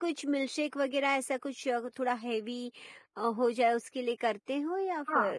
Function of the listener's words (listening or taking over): taking over